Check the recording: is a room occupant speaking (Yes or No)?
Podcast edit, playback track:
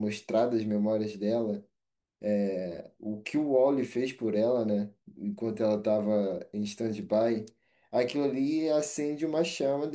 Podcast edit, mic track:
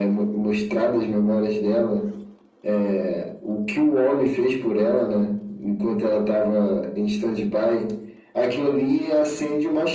No